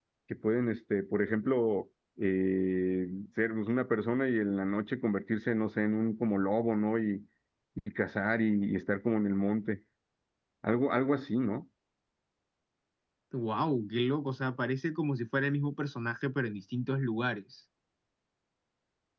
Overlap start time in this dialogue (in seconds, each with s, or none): none